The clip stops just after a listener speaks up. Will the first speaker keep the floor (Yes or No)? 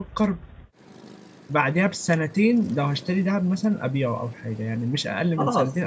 No